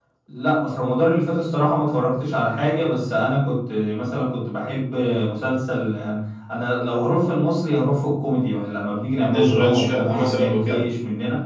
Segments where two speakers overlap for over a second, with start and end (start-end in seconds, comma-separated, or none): 9.3-10.8